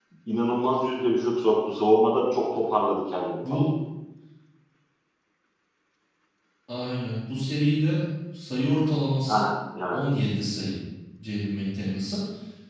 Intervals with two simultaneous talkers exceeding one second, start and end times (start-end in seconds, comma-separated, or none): none